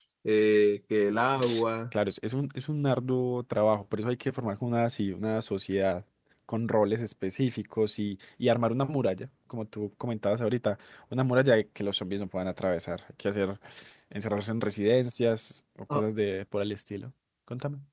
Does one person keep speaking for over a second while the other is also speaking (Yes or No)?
No